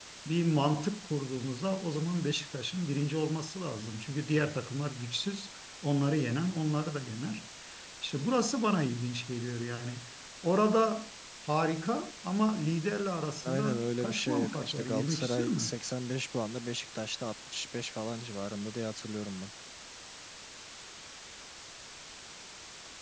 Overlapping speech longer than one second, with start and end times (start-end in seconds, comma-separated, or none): 13.4-15.7